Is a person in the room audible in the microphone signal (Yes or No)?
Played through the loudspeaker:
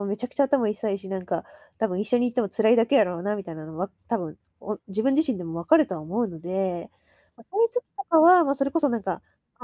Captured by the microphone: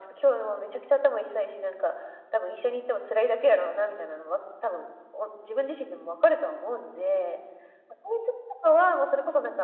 No